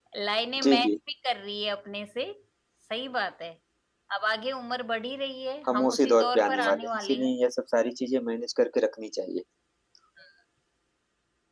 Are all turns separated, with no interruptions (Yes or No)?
No